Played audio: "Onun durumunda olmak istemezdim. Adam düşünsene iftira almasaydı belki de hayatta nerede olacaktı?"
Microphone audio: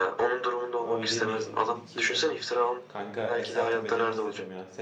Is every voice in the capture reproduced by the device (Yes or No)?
No